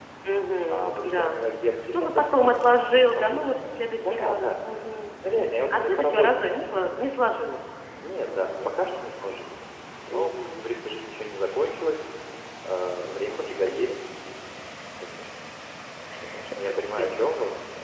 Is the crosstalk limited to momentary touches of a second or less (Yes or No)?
No